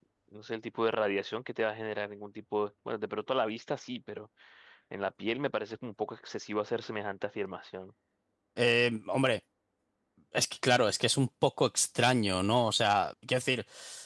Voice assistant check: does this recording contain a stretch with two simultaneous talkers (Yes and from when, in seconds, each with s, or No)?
No